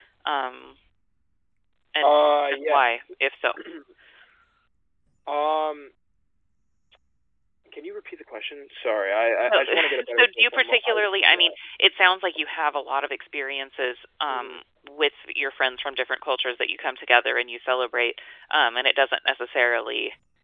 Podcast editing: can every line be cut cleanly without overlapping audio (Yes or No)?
No